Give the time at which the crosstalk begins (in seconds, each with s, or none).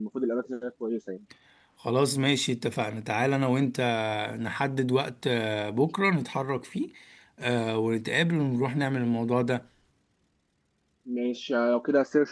none